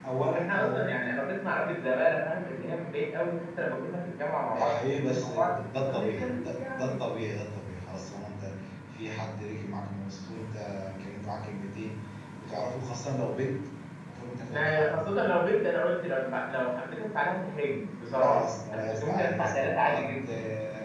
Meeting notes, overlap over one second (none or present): present